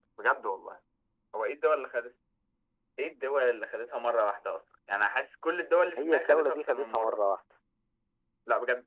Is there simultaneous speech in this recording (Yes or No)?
Yes